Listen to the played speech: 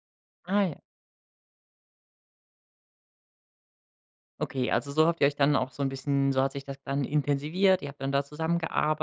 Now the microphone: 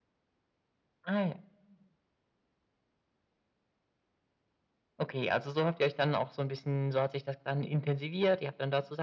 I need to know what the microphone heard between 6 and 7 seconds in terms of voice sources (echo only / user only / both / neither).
echo only